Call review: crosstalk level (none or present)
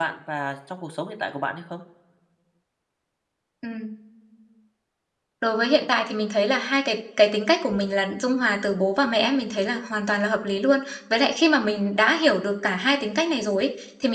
none